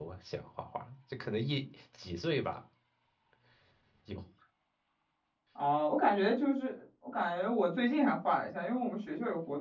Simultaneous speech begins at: none

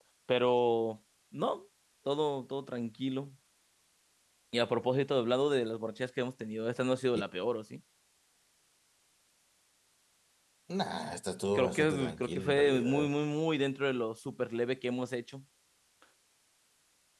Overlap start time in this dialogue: 11.6 s

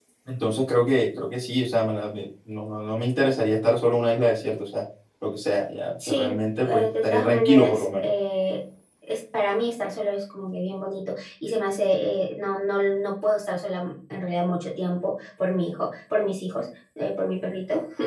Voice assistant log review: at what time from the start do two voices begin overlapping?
6.0 s

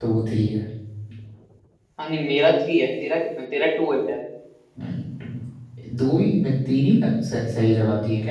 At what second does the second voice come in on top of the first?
none

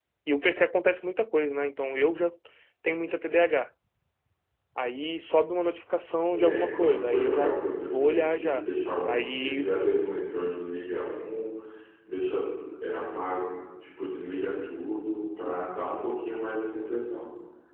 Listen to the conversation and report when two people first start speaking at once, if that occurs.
6.3 s

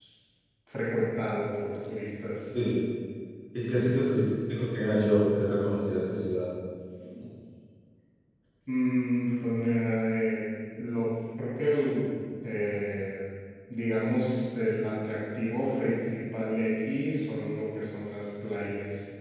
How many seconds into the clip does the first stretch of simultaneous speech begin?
none

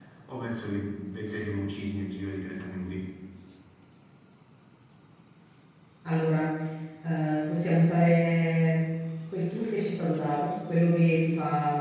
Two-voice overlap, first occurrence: none

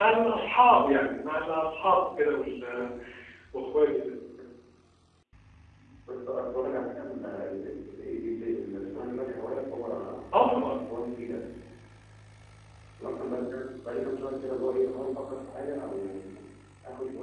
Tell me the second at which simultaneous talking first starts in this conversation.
none

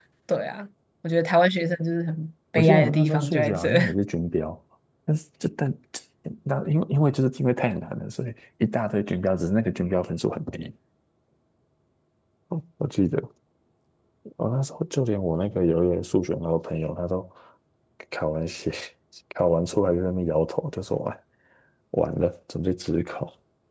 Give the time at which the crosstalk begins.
2.6 s

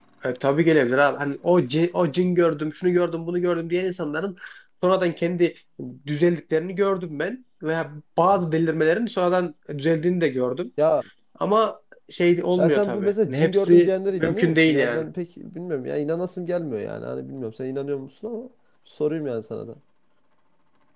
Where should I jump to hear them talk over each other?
12.6 s

